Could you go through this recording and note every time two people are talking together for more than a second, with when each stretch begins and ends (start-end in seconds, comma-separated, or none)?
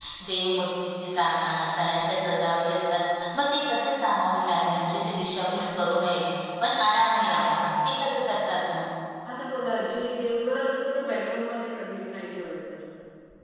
none